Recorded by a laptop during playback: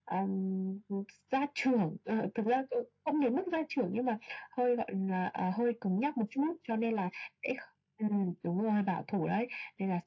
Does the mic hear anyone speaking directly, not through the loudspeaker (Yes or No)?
No